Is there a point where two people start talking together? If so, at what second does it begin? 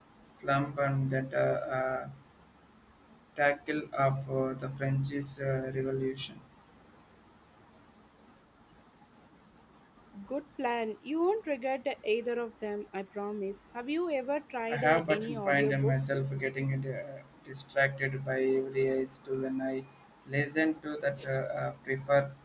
14.7 s

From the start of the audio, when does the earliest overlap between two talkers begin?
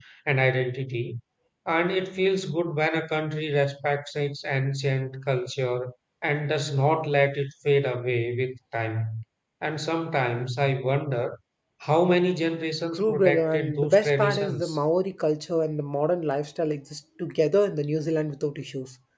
12.9 s

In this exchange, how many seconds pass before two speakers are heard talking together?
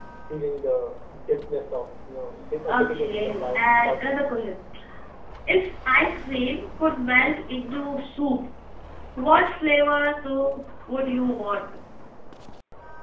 2.7 s

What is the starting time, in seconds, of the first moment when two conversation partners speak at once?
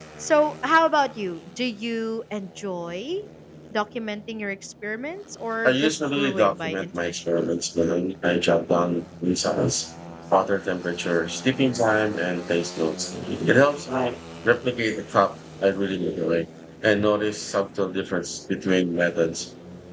5.6 s

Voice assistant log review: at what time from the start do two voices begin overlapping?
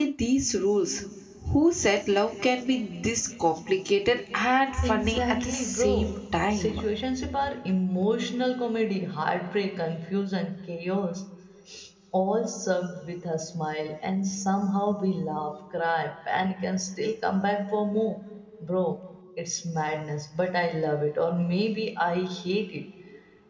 4.7 s

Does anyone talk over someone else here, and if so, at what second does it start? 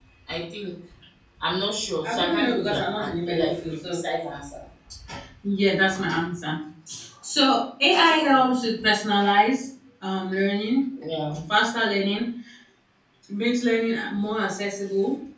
2.0 s

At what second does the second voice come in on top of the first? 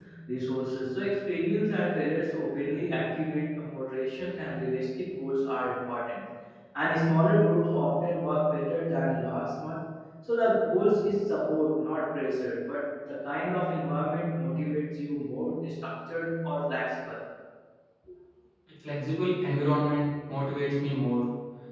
none

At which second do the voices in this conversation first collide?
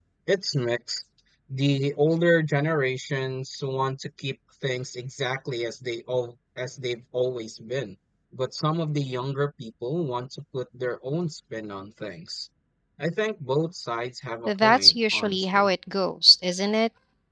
14.5 s

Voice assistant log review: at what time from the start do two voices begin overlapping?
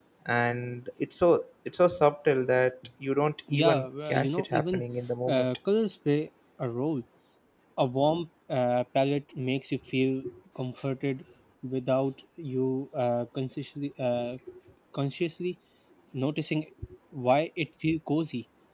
3.5 s

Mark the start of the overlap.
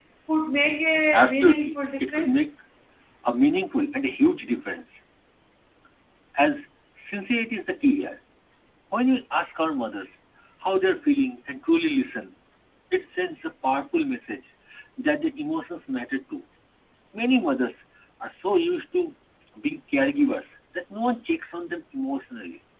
1.1 s

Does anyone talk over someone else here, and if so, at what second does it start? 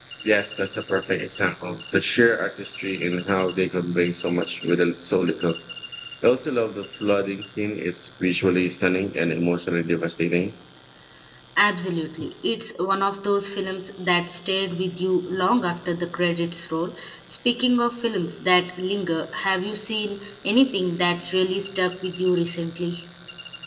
none

